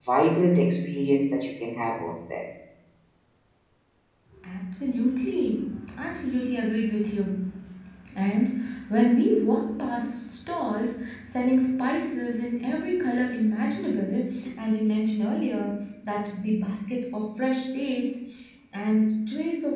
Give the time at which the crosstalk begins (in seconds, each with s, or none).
none